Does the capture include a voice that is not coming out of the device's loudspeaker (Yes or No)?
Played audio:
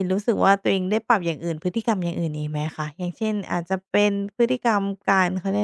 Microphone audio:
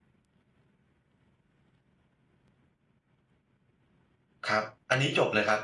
Yes